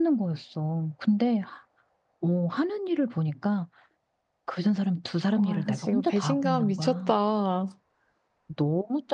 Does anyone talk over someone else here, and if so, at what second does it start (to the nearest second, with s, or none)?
5 s